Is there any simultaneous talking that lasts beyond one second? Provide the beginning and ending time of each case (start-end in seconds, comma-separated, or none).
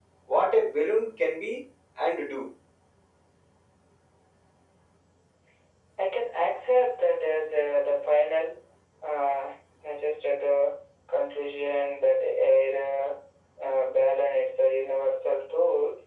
none